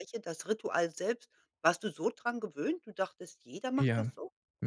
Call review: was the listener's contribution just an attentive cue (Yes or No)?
No